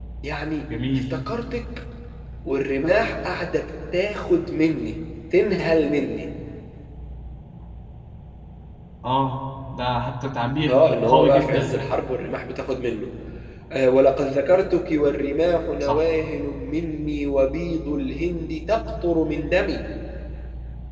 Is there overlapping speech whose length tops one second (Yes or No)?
Yes